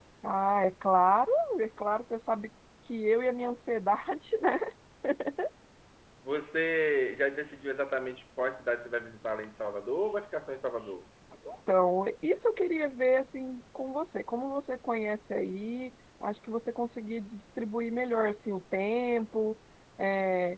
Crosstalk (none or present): none